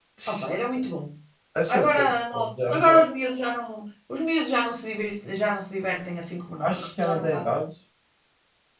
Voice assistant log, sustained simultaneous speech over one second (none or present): present